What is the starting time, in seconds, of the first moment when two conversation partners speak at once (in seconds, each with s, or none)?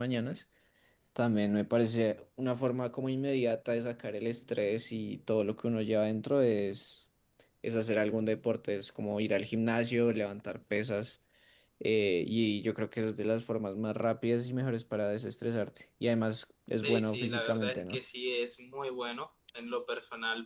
16.8 s